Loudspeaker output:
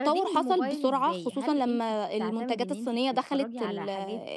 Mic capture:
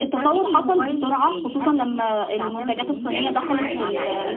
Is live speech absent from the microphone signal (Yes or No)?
No